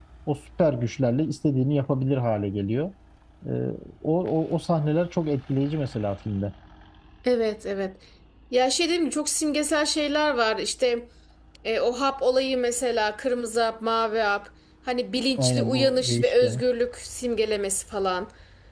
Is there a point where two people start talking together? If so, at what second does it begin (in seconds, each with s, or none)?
15.4 s